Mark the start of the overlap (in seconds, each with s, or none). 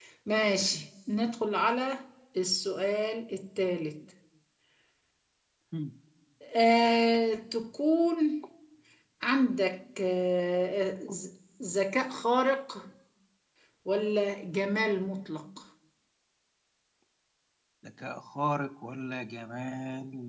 none